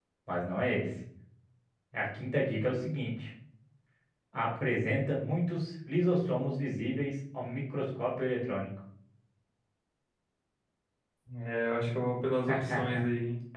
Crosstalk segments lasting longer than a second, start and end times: none

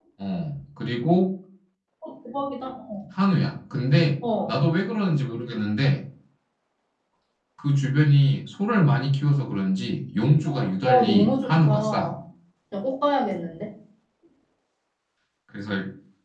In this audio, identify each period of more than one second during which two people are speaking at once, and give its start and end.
10.8-12.1

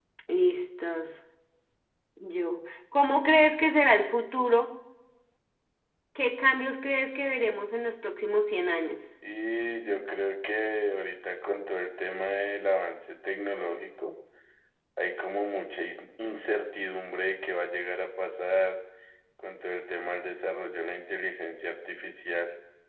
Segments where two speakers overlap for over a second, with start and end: none

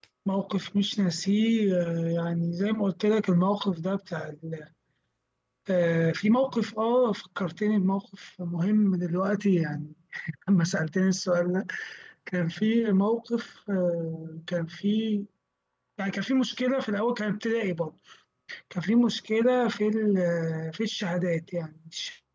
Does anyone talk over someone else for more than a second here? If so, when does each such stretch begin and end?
none

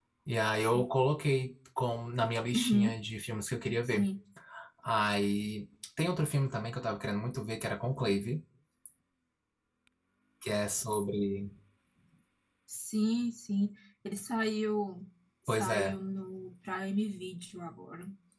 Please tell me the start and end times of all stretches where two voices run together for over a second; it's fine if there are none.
none

